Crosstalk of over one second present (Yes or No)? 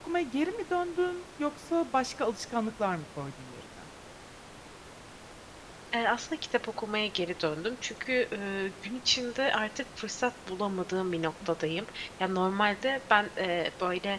No